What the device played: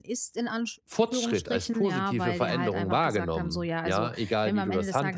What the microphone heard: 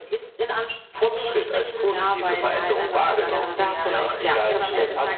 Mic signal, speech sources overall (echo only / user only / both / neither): both